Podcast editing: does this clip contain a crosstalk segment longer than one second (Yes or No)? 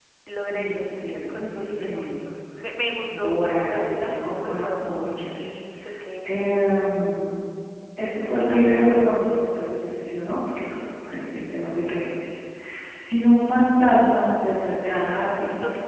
Yes